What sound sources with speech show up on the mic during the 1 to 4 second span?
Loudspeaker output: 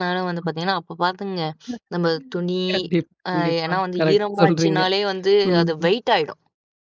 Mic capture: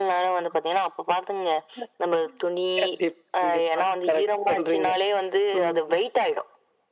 echo only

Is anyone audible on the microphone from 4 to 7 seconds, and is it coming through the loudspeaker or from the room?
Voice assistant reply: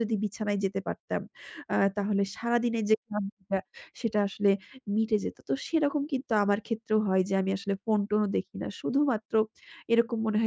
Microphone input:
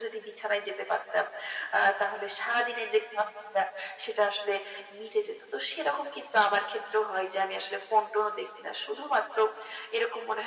echo only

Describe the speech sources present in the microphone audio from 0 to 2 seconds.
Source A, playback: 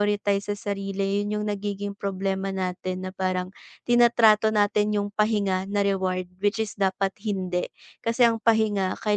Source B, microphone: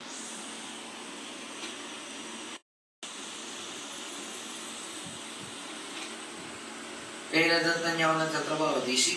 neither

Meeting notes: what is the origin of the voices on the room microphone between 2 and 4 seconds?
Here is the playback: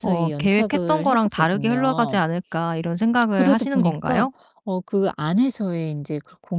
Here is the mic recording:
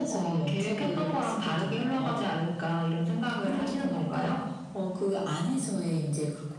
echo only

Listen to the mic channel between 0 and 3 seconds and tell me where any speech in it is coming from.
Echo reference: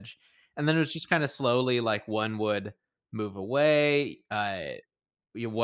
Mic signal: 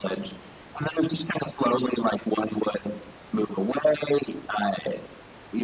echo only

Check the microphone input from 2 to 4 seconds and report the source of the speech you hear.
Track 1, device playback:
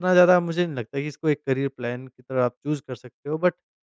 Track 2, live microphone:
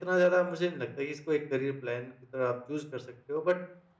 echo only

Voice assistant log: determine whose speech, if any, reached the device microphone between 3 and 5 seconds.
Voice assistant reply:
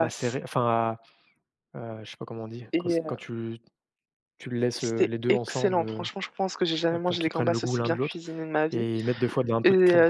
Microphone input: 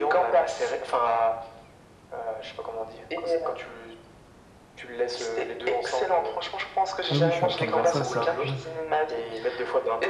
echo only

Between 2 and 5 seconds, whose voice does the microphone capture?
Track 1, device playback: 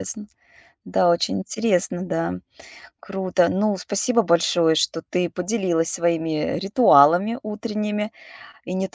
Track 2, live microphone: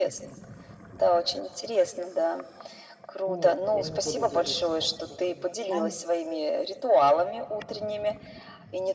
both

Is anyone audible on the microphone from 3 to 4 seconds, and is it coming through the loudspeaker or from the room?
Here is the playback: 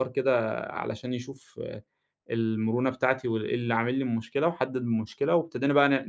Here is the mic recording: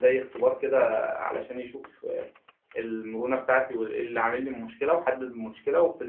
echo only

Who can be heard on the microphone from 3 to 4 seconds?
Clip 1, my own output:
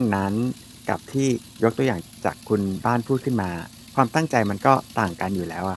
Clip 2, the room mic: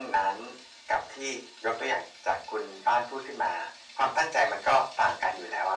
echo only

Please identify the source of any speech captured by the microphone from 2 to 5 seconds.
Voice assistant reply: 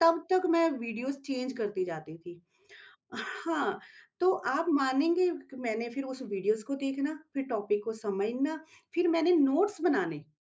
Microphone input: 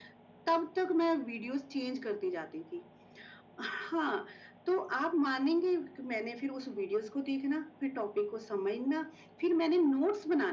echo only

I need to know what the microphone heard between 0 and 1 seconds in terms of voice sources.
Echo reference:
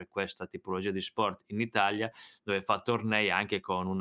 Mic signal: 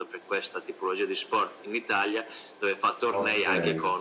echo only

